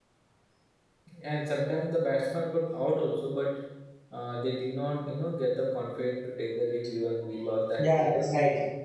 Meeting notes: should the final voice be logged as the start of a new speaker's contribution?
Yes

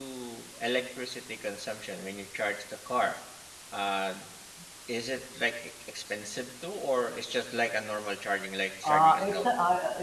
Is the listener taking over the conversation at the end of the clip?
Yes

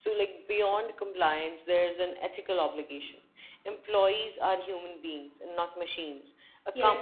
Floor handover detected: No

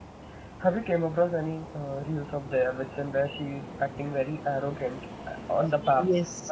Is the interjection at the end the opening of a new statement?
Yes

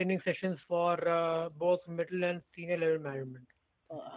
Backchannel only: No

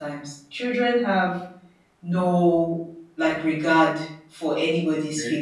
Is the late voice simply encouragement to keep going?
Yes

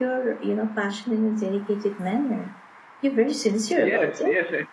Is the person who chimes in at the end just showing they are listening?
No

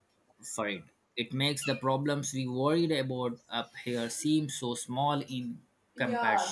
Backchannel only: No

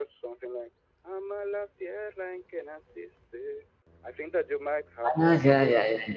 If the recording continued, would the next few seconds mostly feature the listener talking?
Yes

